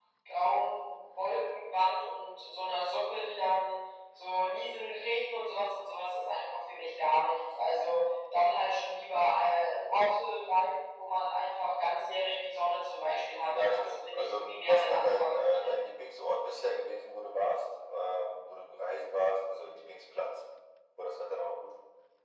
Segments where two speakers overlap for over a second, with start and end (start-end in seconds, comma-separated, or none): 13.5-15.4